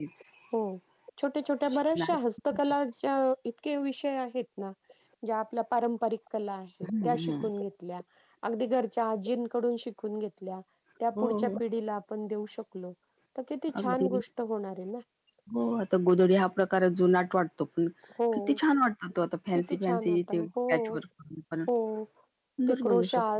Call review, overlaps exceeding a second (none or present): present